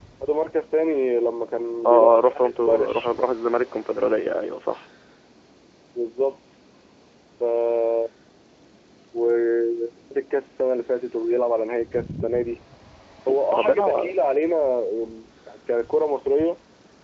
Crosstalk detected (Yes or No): Yes